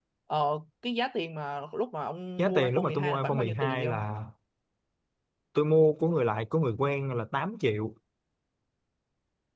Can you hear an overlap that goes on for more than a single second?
Yes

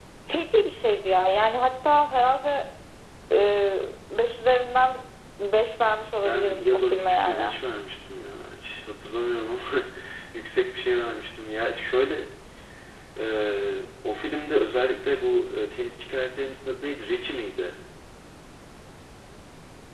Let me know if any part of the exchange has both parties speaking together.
Yes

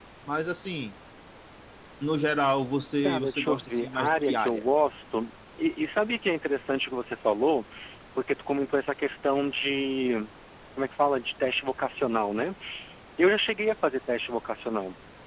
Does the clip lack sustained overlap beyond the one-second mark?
No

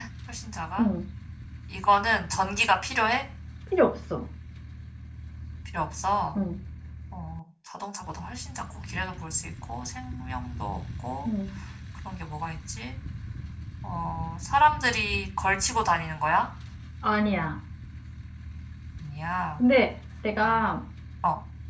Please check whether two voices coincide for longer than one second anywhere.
No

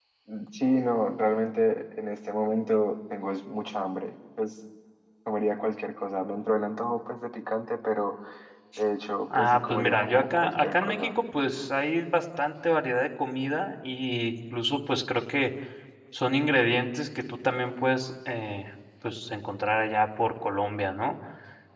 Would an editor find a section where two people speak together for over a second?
Yes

